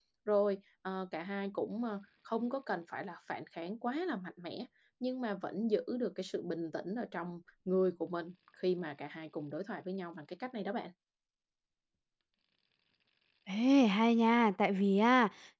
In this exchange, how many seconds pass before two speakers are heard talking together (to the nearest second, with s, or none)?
none